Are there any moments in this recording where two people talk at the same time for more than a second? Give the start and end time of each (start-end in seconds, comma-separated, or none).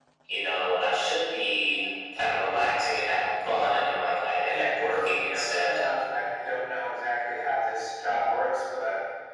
4.4-5.8